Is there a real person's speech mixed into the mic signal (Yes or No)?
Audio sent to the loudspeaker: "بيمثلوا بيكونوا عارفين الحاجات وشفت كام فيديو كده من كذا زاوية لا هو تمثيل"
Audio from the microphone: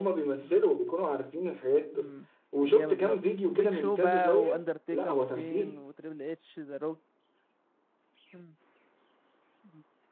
Yes